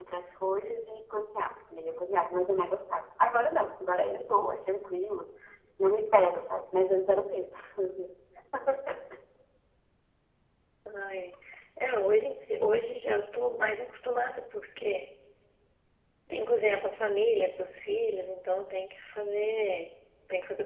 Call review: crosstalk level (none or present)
none